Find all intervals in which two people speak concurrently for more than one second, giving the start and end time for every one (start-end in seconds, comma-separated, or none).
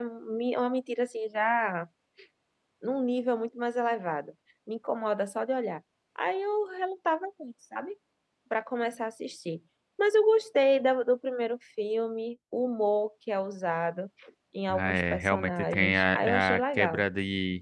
14.7-17.0